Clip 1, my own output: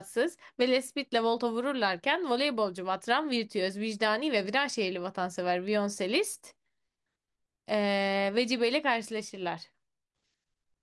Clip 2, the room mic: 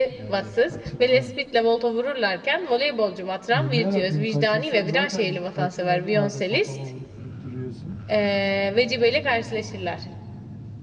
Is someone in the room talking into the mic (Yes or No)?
Yes